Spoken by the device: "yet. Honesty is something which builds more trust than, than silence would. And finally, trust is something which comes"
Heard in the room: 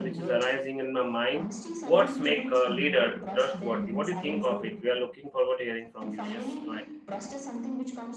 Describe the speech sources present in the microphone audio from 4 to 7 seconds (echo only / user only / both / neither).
both